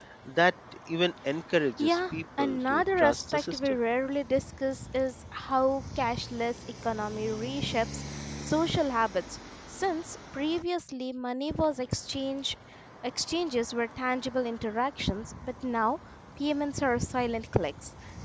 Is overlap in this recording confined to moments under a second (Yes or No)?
No